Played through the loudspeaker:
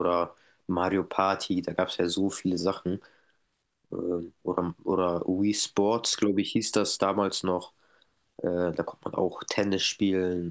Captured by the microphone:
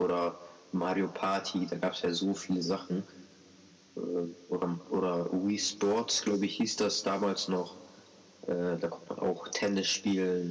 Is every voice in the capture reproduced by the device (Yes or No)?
Yes